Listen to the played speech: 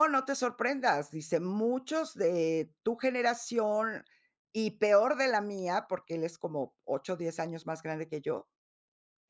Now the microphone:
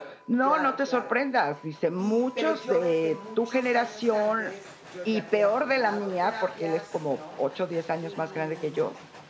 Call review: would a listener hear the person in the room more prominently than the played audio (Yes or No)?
No